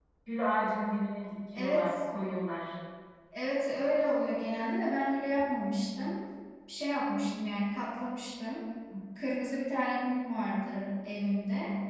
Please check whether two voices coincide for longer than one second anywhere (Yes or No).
No